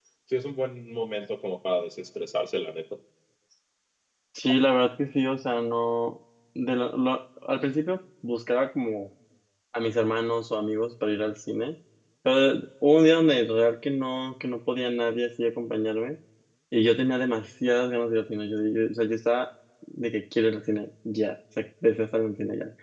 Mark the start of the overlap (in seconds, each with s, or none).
none